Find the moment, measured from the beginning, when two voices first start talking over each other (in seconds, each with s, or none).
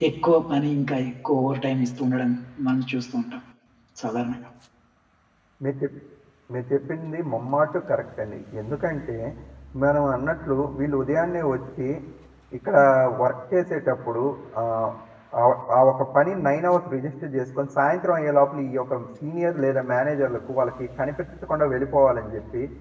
none